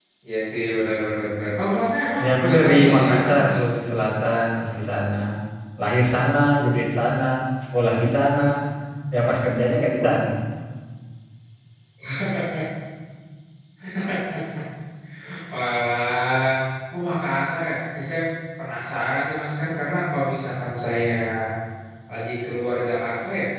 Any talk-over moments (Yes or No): Yes